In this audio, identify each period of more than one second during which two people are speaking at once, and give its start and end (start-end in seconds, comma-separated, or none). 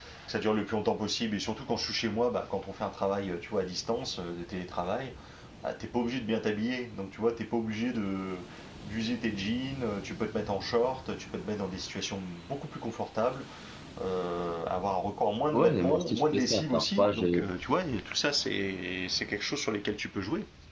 15.5-17.3